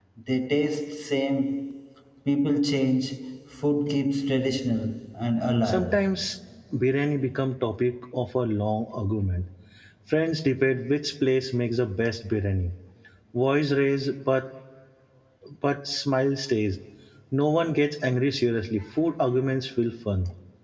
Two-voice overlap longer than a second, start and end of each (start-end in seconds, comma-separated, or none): none